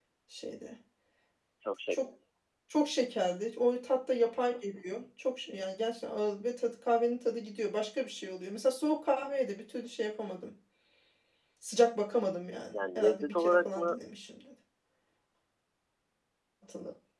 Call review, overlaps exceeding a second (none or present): present